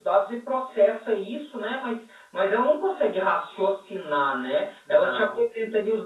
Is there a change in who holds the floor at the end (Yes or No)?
No